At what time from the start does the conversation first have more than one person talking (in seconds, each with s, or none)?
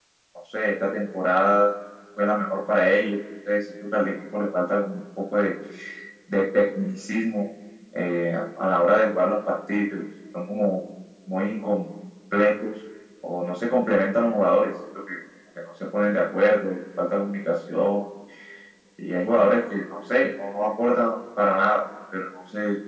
none